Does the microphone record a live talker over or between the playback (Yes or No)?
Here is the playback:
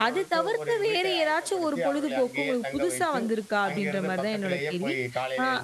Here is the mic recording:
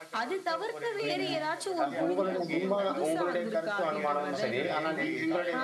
Yes